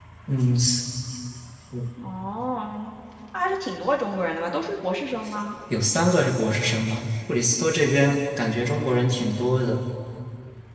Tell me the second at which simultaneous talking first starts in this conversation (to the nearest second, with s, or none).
none